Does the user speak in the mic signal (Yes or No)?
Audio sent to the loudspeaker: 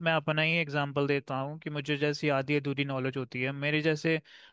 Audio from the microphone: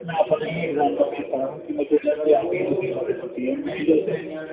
Yes